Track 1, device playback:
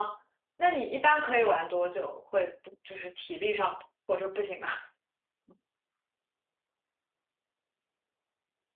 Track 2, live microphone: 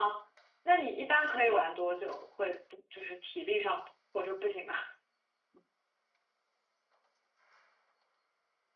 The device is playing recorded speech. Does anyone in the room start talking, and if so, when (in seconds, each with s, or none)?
none